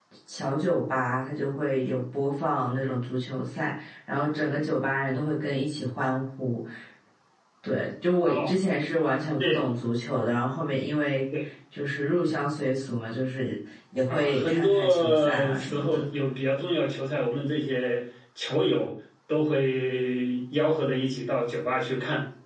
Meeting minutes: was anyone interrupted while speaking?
Yes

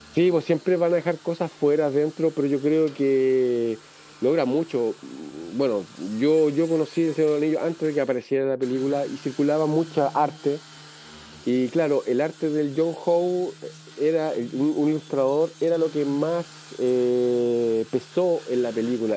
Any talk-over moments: No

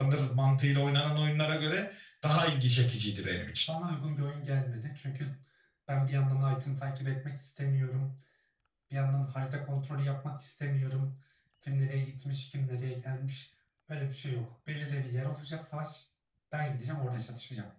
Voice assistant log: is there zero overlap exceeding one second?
Yes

